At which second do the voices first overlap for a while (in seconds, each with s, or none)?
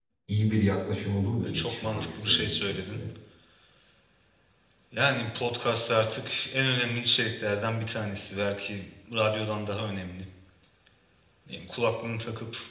1.4 s